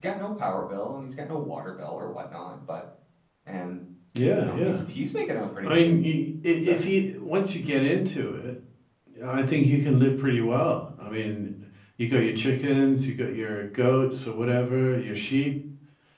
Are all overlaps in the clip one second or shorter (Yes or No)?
Yes